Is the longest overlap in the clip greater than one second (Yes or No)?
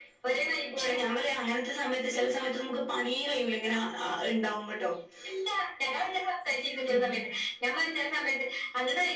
No